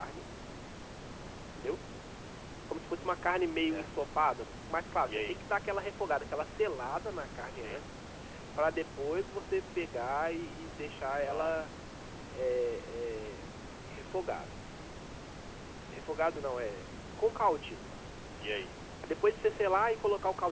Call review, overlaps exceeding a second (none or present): none